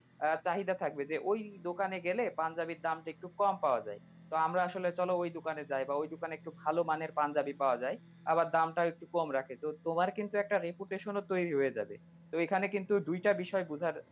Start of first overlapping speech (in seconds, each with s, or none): none